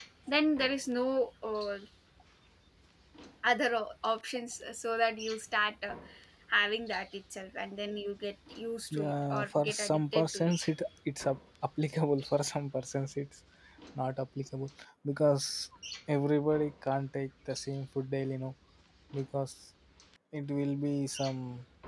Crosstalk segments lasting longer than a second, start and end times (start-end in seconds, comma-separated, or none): 8.9-10.7